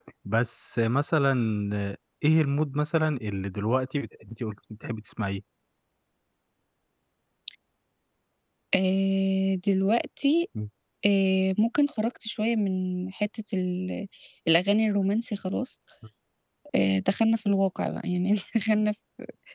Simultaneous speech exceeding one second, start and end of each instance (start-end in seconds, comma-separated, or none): none